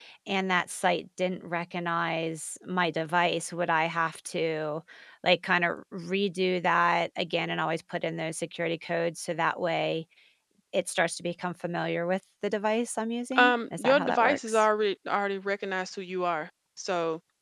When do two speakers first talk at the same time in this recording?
13 s

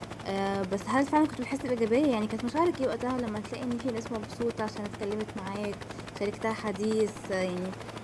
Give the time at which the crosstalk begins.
none

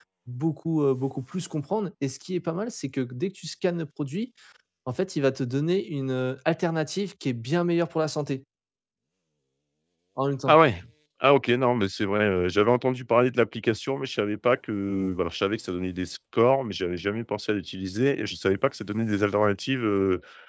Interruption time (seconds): none

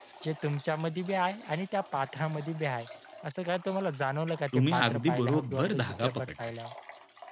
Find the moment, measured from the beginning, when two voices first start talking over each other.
5 s

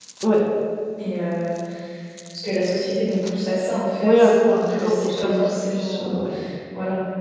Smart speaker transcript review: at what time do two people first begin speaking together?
4 s

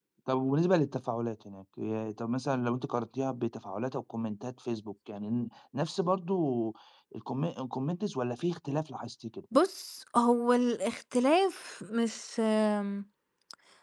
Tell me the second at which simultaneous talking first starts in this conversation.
none

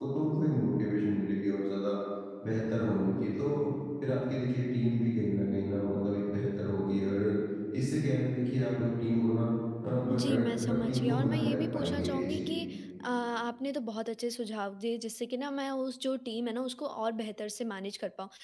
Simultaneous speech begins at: 10 s

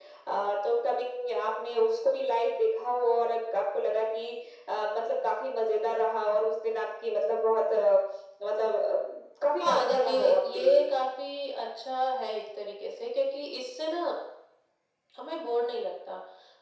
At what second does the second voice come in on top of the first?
10 s

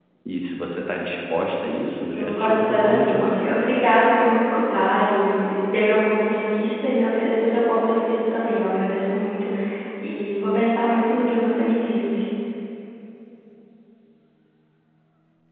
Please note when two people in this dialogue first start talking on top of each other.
2 s

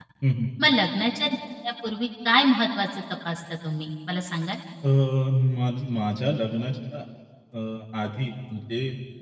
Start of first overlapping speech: none

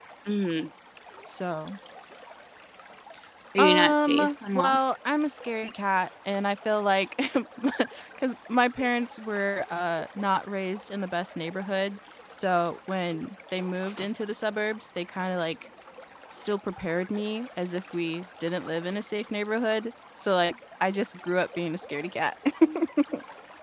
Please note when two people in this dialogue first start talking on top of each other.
4 s

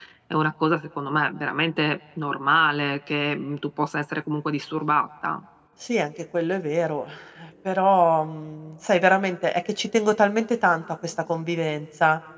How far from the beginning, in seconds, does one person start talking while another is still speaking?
none

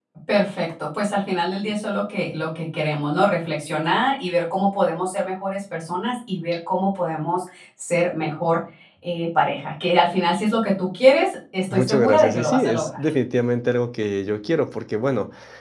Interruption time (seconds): 12 s

